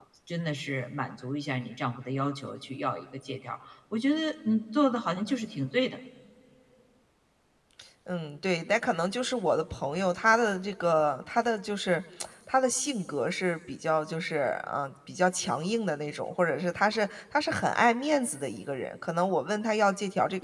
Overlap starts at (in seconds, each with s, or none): none